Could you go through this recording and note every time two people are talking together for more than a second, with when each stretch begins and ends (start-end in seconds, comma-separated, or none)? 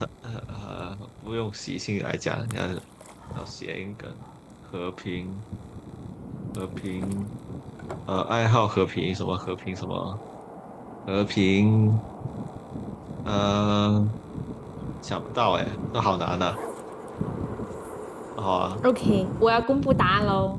none